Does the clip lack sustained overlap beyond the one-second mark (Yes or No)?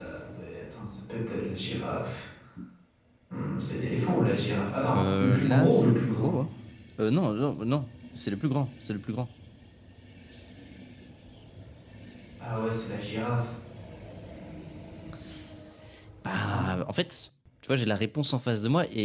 No